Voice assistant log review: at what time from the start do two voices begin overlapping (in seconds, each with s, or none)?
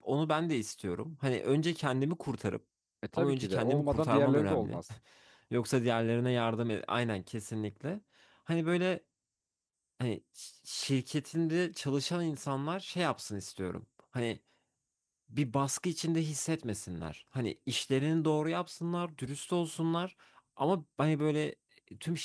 3.2 s